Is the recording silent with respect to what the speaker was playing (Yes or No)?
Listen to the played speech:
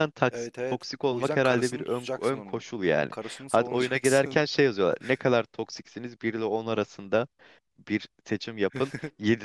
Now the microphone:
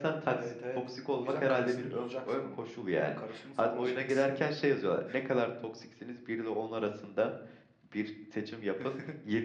No